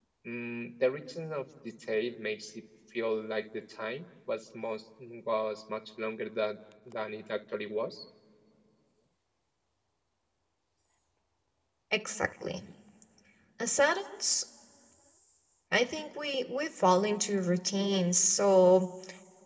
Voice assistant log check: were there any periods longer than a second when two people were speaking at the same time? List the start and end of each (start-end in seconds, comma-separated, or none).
none